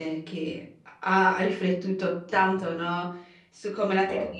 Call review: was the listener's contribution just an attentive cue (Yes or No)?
Yes